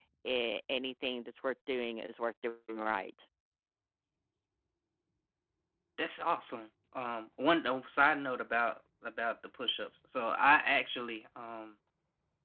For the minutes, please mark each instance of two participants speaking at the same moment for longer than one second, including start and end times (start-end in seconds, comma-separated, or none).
none